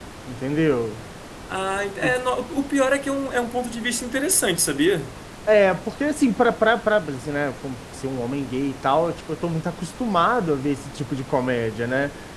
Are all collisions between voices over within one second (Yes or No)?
Yes